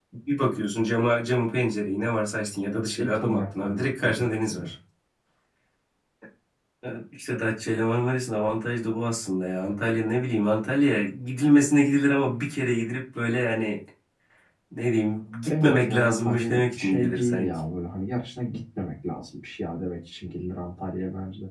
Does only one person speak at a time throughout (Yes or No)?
No